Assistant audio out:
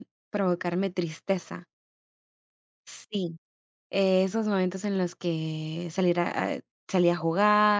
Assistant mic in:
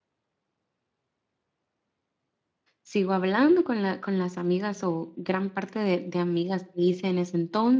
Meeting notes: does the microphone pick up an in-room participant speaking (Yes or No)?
Yes